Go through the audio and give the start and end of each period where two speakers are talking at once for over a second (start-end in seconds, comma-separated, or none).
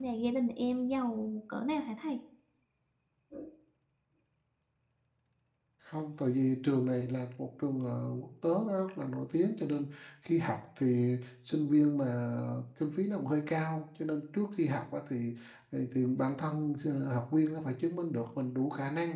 none